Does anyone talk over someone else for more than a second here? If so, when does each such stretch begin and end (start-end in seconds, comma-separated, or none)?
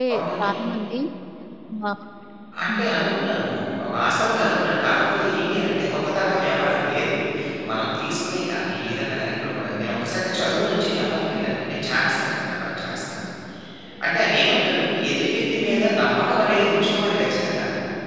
none